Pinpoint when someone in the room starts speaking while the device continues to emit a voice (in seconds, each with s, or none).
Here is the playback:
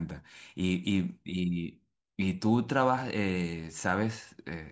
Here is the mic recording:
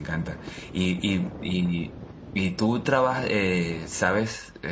none